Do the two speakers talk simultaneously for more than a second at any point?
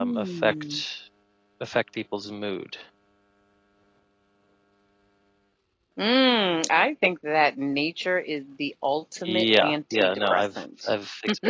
Yes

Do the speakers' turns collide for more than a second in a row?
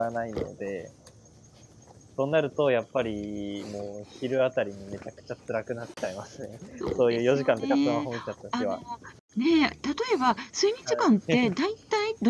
Yes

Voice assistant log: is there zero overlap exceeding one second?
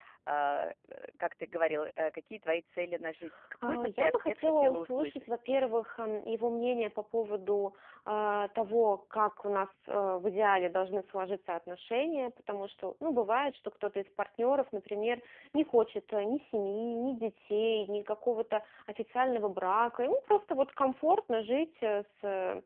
No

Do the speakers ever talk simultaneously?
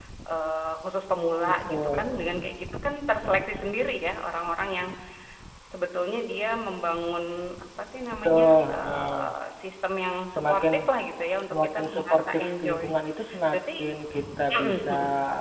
Yes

